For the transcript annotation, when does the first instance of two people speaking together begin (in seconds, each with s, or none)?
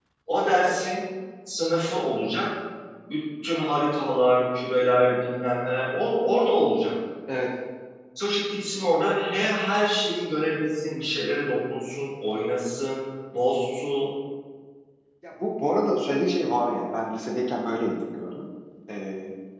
none